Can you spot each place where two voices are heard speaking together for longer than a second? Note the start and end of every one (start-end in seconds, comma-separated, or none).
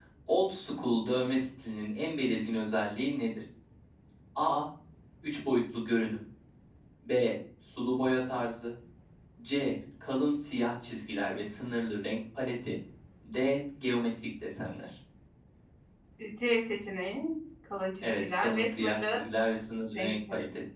18.0-19.2